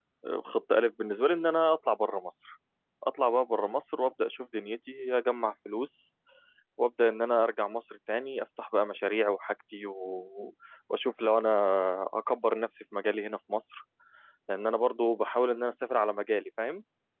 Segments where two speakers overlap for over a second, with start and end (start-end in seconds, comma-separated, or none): none